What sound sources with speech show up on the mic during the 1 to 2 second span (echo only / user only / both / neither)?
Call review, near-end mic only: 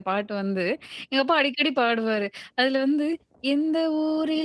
user only